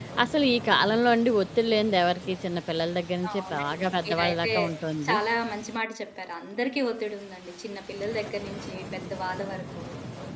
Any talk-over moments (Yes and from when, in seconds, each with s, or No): Yes, from 3.2 s